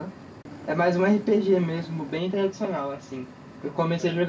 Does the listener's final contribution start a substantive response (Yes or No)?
No